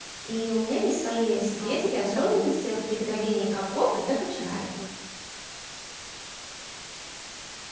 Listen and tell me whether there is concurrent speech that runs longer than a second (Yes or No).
Yes